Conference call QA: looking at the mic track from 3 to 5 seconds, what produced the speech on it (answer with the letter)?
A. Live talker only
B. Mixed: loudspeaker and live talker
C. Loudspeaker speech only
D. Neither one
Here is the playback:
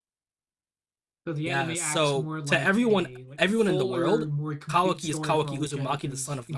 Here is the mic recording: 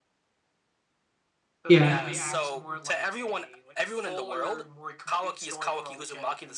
C